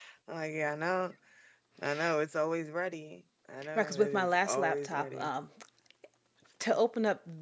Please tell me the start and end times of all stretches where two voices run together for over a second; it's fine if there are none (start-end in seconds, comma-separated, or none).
3.8-5.3